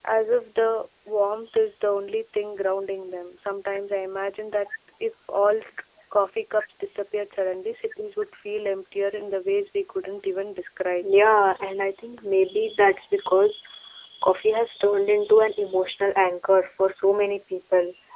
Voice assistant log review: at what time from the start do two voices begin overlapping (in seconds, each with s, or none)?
none